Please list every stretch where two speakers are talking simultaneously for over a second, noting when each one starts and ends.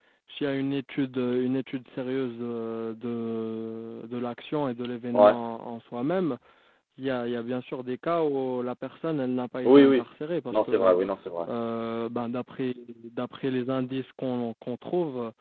none

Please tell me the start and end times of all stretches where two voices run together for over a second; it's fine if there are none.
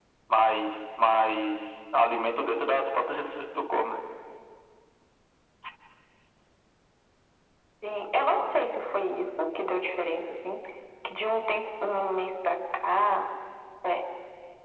none

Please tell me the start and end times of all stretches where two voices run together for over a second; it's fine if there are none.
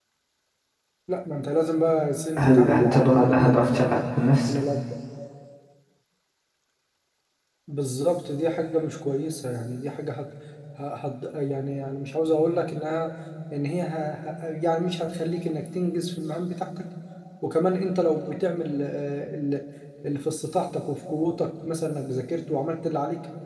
2.4-4.0

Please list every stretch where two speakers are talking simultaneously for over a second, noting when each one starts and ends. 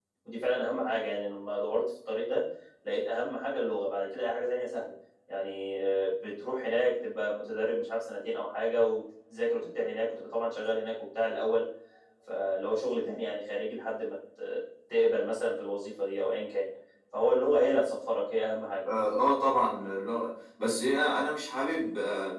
none

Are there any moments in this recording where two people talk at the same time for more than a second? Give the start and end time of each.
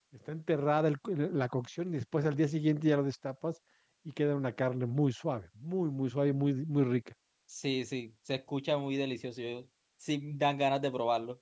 none

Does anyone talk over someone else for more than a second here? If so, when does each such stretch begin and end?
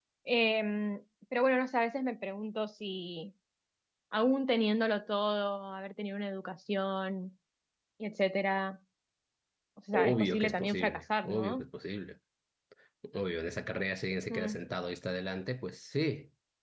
9.9-11.7

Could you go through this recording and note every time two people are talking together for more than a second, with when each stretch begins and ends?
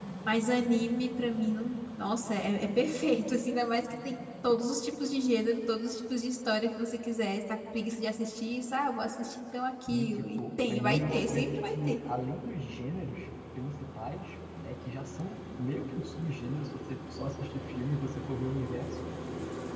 9.9-12.0

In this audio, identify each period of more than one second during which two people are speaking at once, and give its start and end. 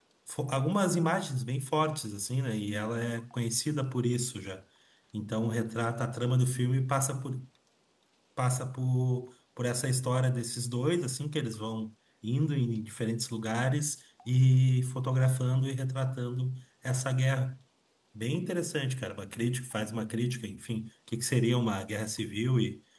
none

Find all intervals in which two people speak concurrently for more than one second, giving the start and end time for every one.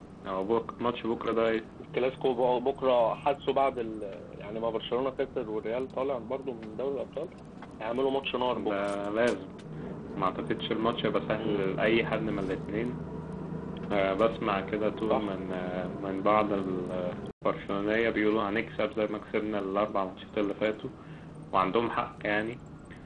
none

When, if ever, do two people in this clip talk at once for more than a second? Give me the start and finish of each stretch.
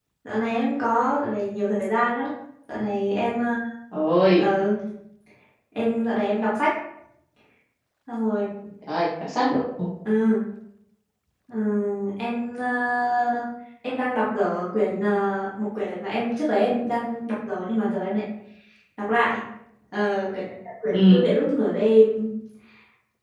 none

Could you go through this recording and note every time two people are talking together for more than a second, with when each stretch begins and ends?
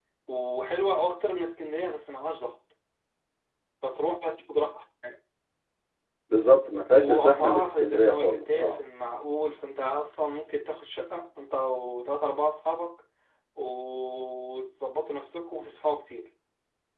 6.9-8.9

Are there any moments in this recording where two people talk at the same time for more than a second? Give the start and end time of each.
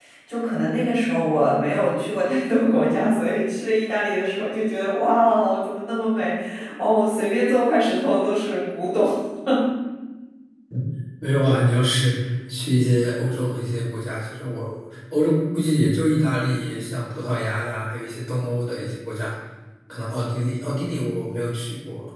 none

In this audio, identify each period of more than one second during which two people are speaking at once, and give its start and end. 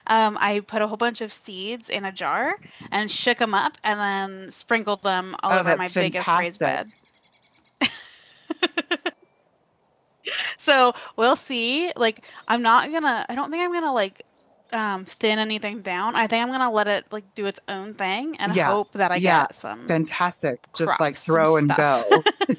5.5-6.8, 20.8-22.1

